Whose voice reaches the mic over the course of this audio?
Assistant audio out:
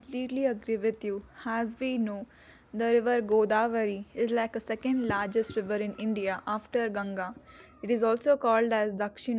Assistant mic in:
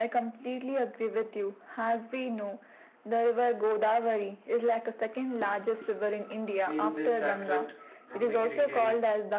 both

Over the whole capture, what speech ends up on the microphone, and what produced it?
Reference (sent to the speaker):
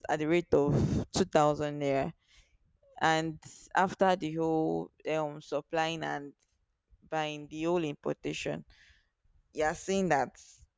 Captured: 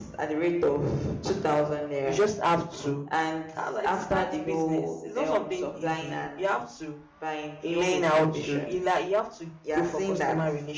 both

